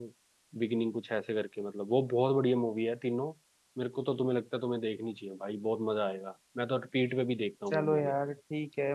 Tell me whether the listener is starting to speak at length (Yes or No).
Yes